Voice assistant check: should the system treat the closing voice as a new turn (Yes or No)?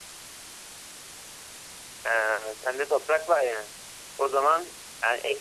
No